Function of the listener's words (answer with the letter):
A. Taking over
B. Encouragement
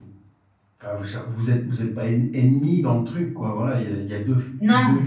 B